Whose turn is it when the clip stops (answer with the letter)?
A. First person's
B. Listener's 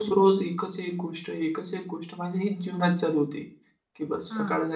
A